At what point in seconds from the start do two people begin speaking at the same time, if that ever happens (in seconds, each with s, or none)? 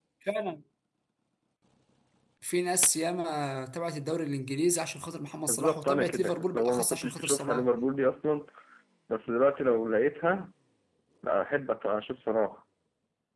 5.5 s